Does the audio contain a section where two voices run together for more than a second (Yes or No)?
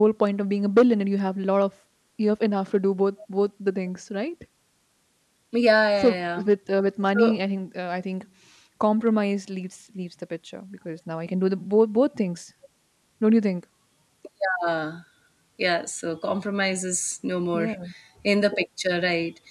No